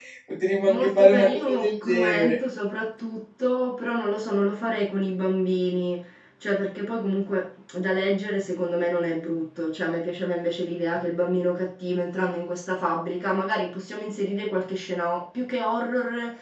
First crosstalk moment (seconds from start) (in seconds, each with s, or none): 0.6 s